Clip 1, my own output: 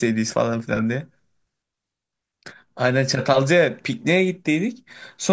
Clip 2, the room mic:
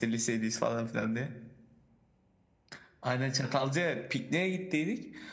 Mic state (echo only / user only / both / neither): echo only